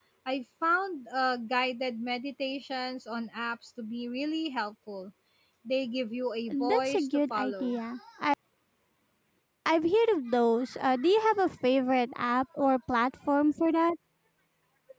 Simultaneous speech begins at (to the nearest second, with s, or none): 7 s